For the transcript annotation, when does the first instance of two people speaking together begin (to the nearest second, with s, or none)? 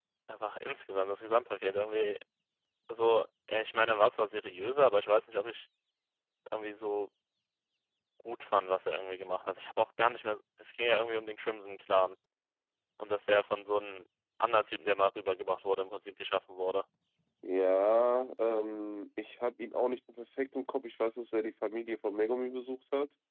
none